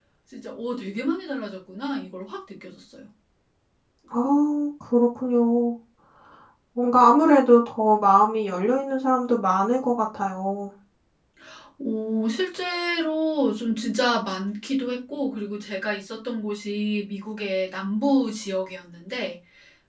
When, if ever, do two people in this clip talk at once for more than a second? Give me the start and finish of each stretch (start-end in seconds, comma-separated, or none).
none